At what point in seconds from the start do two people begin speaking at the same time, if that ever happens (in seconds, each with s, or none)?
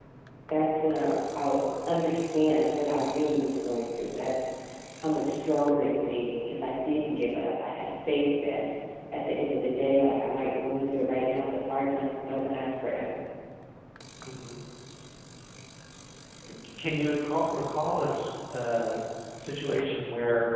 none